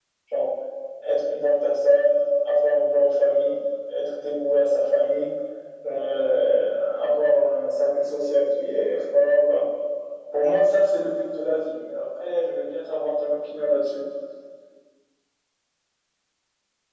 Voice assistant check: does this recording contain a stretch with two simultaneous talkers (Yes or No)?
No